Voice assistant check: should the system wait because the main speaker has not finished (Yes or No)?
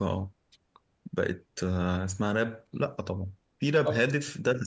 Yes